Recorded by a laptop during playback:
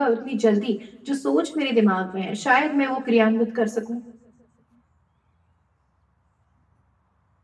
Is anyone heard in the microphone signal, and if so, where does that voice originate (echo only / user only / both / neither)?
echo only